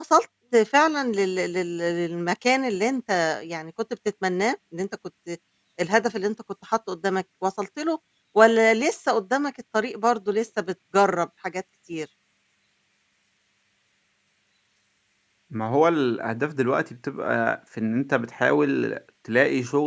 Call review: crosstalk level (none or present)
none